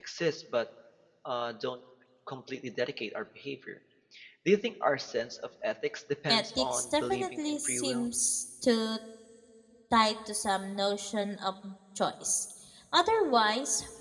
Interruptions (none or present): present